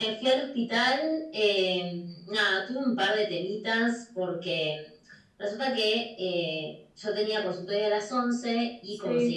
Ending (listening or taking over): listening